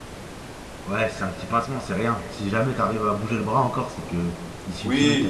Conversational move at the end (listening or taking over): taking over